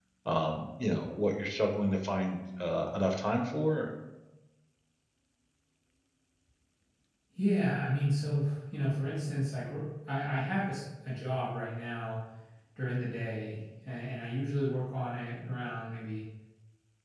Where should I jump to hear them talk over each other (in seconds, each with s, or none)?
none